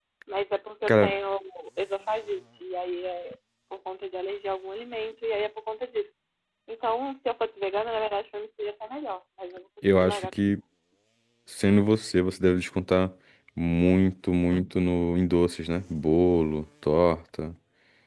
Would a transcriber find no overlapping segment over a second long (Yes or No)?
Yes